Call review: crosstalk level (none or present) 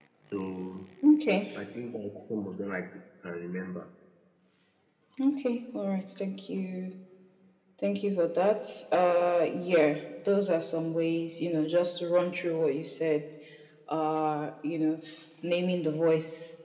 none